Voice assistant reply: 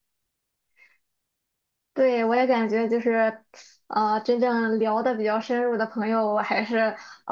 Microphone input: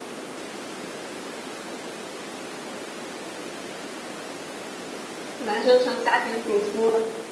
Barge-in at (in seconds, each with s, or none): 5.4 s